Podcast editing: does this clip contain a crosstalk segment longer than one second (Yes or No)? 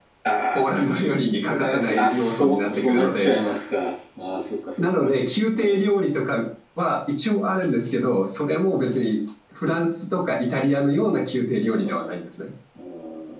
Yes